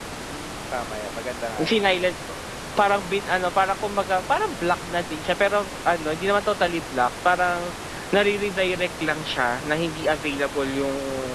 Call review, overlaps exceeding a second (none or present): none